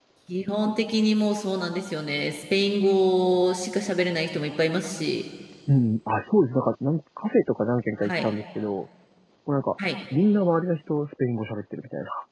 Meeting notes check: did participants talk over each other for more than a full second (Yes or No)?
No